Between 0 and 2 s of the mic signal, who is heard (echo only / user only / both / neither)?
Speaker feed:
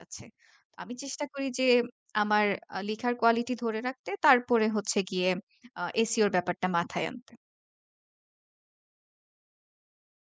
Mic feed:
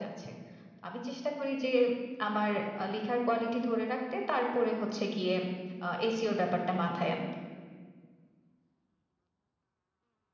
echo only